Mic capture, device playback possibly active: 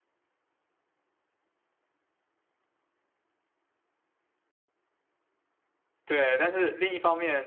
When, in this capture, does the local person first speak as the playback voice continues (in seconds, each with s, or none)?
6.0 s